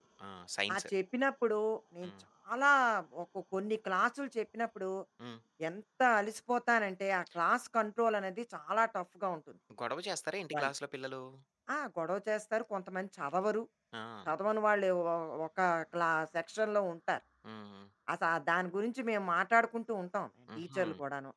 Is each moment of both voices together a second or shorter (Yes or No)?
Yes